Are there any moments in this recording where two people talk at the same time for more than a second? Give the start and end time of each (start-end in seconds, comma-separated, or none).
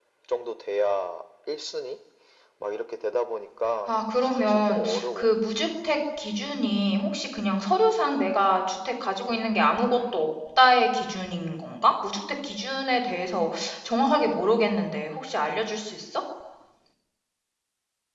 3.9-5.3